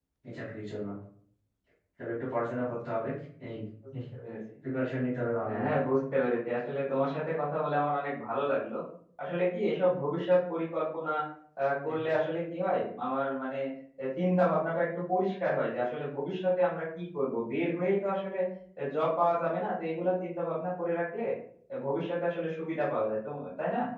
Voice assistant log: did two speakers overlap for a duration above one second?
No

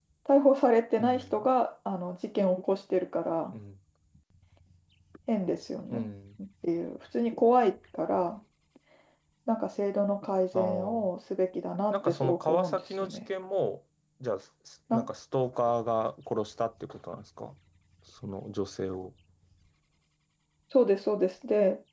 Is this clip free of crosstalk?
No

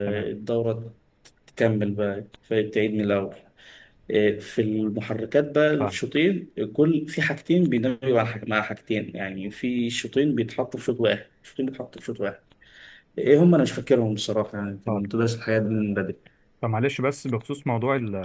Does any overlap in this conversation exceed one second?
No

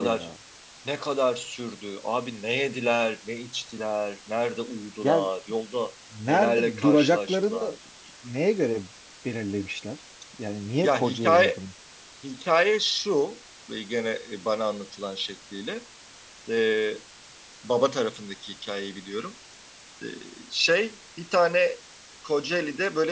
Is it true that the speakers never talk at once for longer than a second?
No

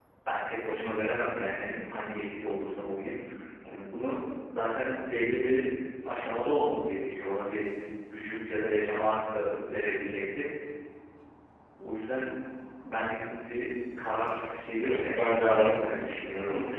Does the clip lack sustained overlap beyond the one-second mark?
No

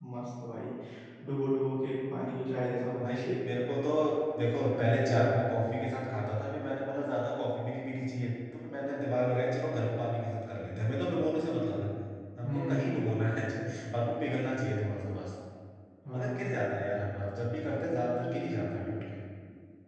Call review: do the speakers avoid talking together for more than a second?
Yes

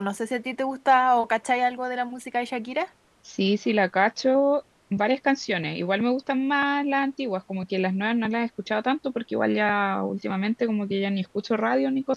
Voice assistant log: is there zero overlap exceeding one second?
Yes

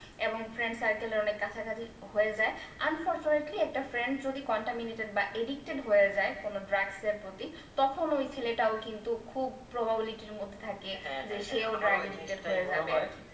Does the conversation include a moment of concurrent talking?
Yes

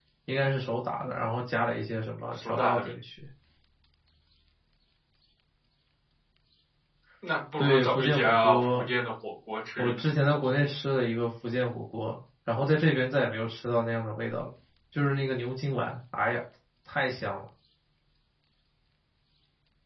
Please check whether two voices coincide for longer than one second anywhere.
Yes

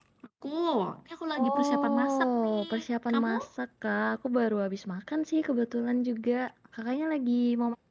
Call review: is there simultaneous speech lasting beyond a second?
Yes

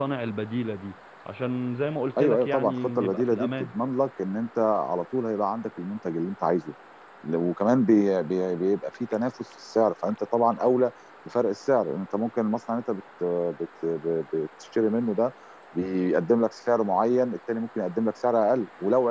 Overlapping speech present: Yes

